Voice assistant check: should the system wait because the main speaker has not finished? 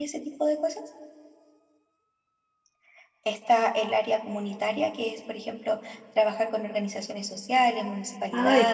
No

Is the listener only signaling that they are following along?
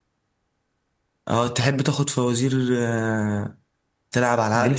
No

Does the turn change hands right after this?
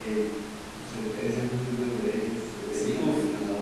Yes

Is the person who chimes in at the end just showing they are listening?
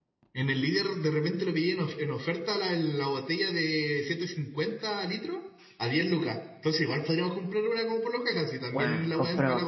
No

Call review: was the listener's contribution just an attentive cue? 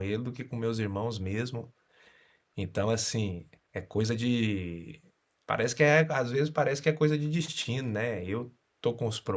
Yes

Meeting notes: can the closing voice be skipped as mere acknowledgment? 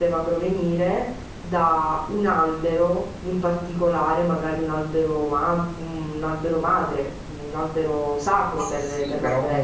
No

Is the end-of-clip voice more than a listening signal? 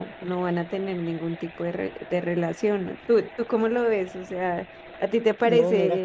Yes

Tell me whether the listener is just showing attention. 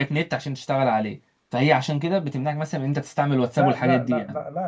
No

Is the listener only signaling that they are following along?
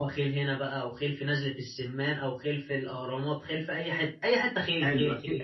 No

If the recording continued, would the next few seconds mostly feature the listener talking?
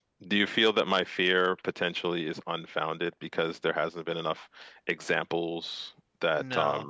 Yes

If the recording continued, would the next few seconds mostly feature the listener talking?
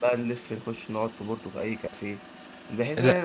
No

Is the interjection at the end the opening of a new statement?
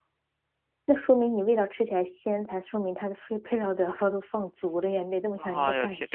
Yes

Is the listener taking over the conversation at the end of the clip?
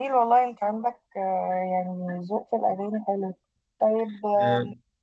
No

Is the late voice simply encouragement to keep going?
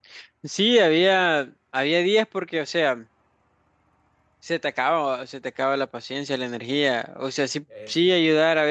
Yes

